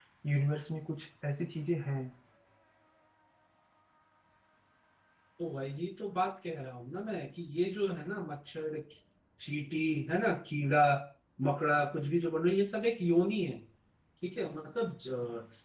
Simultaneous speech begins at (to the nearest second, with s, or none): none